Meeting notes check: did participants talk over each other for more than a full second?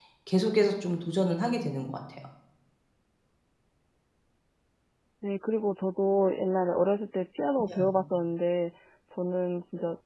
No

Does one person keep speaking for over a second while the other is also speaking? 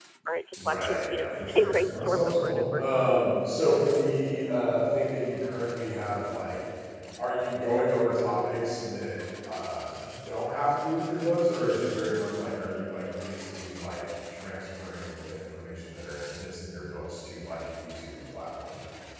Yes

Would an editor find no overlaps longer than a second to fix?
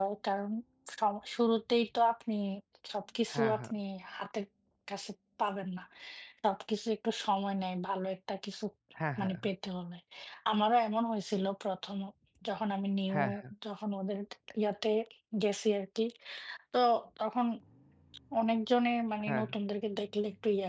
Yes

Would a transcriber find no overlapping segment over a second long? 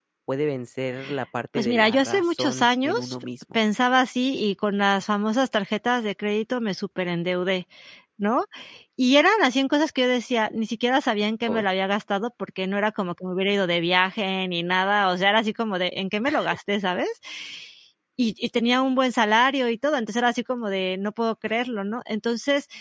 No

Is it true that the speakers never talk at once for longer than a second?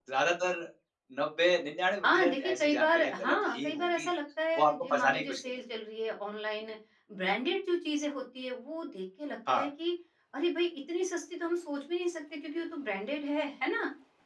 No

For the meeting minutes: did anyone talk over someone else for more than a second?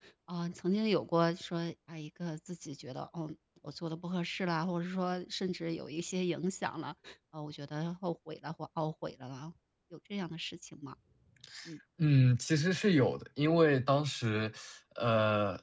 No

